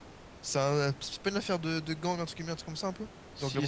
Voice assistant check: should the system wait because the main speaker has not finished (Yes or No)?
No